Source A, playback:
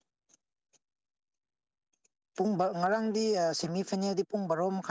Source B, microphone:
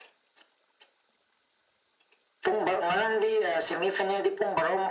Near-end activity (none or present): none